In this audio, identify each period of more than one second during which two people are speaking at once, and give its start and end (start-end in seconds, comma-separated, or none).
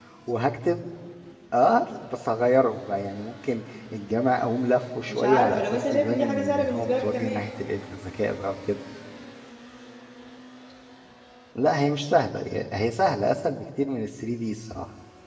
5.1-7.5